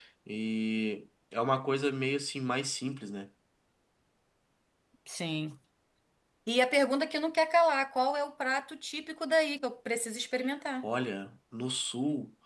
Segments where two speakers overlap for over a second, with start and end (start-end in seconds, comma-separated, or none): none